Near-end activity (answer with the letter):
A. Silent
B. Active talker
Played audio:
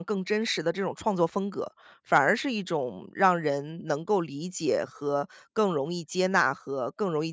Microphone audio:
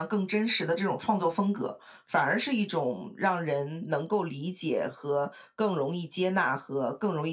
A